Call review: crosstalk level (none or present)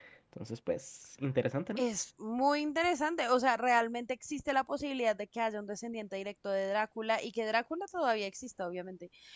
none